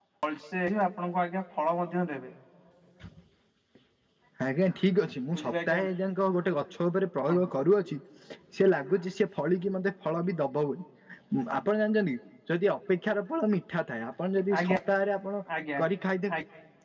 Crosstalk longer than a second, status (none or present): none